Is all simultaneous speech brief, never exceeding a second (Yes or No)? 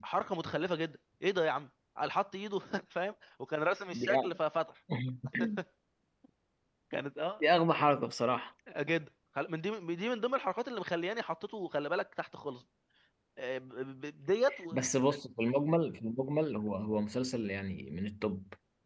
Yes